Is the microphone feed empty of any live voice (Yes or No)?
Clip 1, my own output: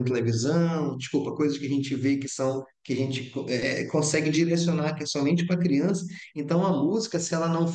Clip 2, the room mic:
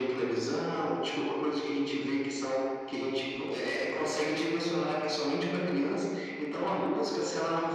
Yes